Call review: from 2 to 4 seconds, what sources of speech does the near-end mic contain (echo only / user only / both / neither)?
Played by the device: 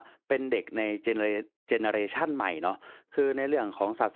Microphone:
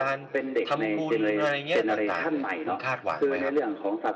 both